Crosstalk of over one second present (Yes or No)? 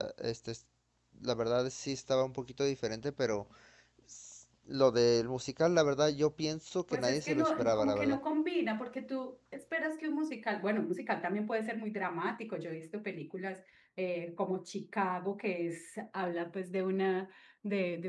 Yes